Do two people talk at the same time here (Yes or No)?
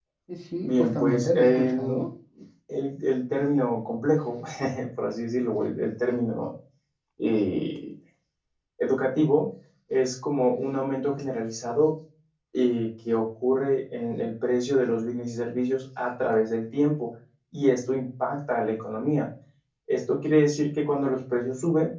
Yes